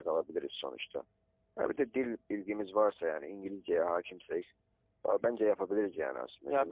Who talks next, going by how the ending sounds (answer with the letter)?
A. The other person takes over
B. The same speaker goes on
A